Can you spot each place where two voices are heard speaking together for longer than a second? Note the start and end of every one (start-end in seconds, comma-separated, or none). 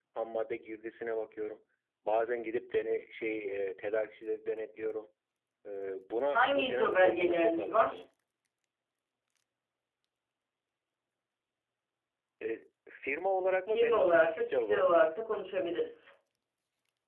6.4-8.0, 13.7-15.1